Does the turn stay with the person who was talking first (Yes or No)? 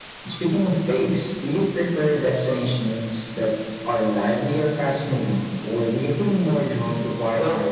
No